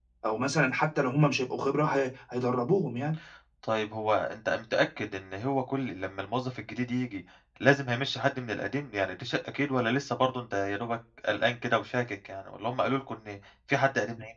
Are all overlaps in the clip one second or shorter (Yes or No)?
Yes